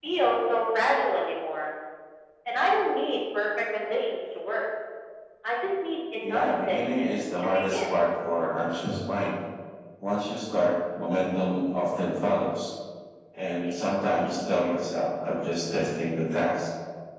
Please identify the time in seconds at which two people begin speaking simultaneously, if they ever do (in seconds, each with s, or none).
6.2 s